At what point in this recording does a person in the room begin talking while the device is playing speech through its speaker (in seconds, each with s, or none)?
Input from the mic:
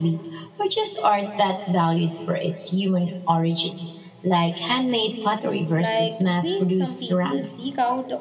5.7 s